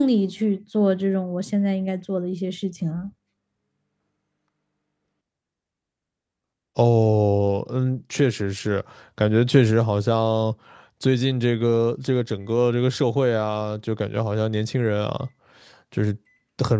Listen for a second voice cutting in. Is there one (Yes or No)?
No